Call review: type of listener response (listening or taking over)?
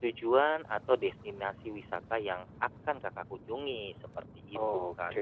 taking over